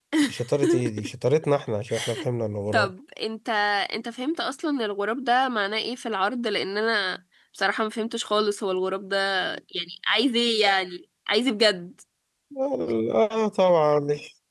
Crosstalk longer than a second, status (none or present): none